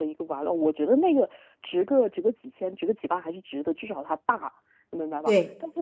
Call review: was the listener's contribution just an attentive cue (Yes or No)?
Yes